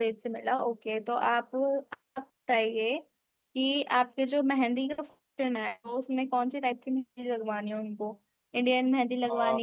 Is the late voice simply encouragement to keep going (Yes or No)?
Yes